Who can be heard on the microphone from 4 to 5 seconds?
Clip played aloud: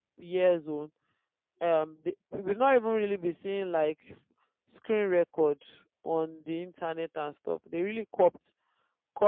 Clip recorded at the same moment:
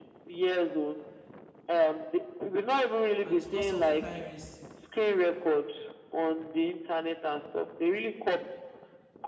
both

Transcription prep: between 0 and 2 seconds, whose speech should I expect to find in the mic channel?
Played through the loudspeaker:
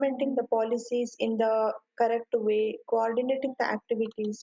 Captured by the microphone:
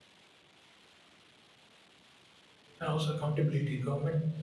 neither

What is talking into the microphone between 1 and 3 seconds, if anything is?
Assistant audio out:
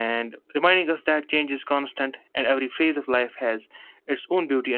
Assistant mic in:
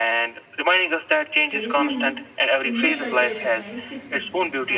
both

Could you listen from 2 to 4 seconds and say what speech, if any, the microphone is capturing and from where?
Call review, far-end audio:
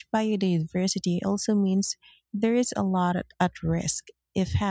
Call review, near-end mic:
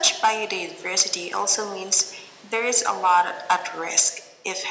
echo only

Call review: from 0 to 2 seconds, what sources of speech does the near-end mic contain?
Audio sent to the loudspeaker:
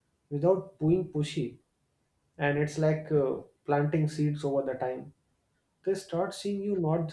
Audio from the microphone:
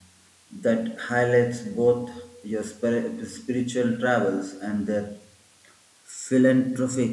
user only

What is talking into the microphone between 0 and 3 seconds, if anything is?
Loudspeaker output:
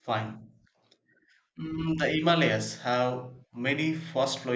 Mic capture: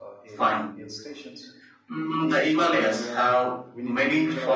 both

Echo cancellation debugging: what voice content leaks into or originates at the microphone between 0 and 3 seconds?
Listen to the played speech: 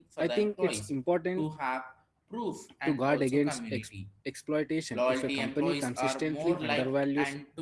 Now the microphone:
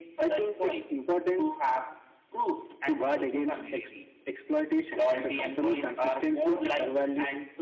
echo only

